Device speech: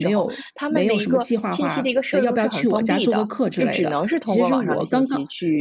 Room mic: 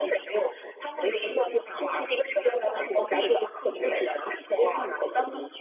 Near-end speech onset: none

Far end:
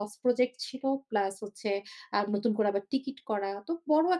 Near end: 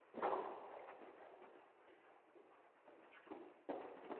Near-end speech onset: none

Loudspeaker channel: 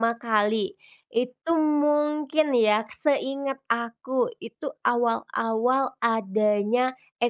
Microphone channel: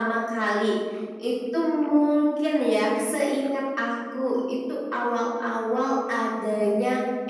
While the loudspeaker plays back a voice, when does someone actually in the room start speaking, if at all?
none

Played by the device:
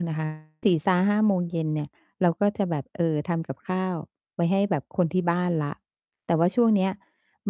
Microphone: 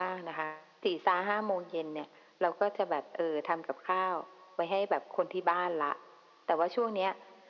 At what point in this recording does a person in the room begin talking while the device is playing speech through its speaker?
none

